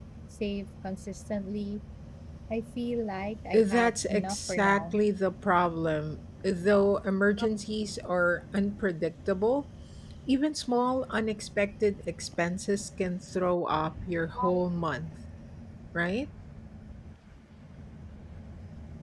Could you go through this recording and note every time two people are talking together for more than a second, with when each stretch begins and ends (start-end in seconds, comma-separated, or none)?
3.5-5.0